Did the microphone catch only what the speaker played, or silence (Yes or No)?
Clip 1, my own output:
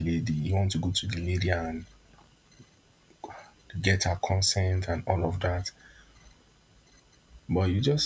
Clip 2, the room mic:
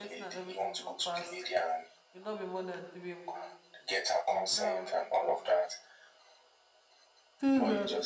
No